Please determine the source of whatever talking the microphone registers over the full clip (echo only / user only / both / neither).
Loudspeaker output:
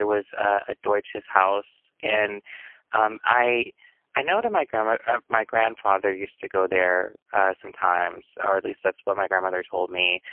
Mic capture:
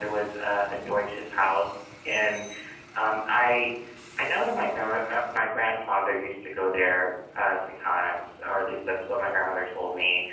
echo only